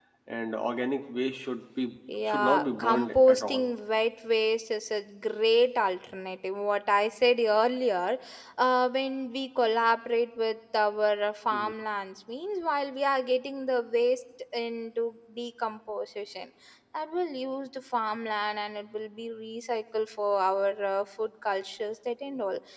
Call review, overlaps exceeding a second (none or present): present